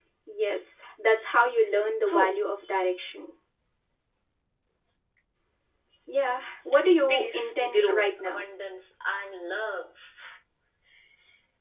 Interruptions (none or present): present